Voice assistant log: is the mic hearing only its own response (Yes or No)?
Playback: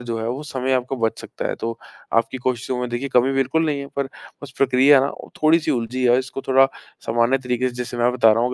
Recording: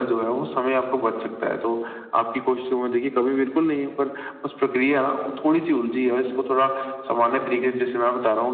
Yes